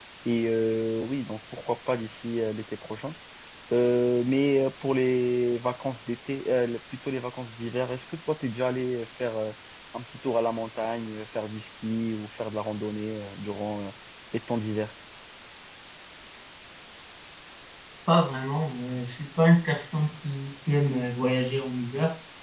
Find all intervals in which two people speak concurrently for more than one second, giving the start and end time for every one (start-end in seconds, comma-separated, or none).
none